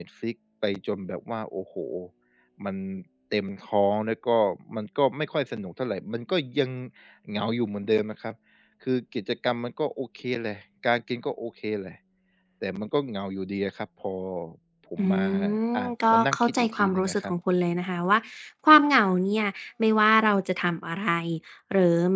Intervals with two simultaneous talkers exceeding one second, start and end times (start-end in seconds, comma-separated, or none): 15.8-17.3